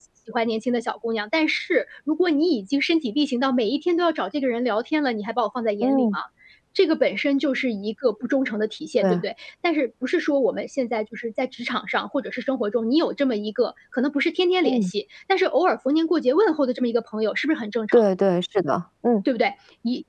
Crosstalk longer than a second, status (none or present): none